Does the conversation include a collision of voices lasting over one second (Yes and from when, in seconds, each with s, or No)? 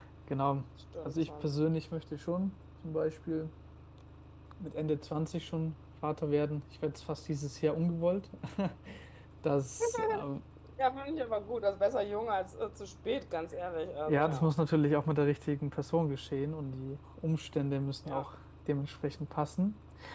No